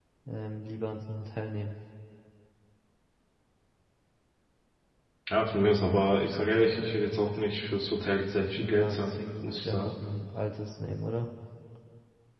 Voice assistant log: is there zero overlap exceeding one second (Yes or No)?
No